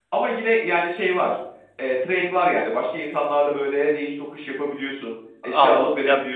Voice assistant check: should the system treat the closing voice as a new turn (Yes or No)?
Yes